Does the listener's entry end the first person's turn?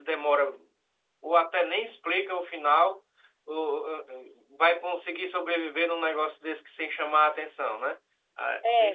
Yes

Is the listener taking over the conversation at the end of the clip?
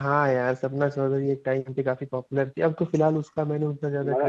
Yes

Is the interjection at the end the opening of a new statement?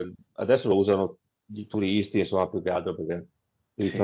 No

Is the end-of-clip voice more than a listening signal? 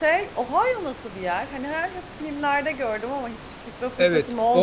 Yes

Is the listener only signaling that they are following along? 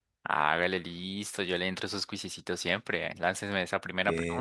No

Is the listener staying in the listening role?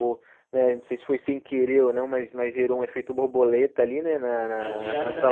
No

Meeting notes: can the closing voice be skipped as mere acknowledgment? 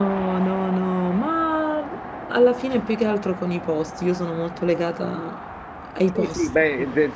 No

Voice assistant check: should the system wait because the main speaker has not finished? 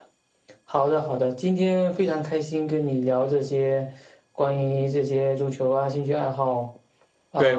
No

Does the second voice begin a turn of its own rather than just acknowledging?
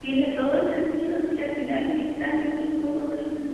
Yes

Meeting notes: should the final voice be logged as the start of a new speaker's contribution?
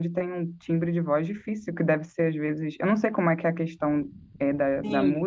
Yes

